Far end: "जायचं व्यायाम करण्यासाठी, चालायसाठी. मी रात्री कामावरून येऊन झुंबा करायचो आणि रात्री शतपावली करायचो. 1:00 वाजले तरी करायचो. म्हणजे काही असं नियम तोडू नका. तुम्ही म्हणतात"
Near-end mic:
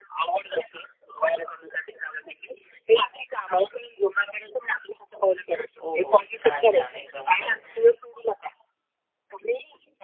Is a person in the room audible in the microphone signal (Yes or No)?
Yes